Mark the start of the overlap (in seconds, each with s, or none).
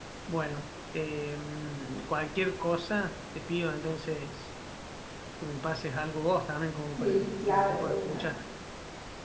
7.0 s